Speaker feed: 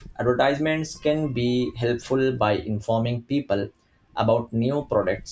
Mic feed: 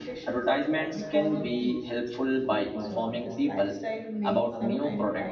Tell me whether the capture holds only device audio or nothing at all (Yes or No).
No